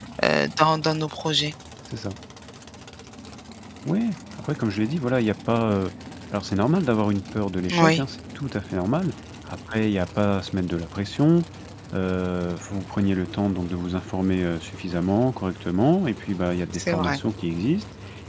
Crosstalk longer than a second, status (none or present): none